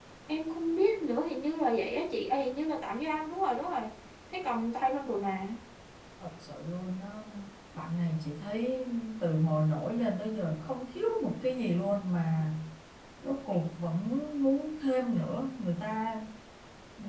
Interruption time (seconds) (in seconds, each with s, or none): none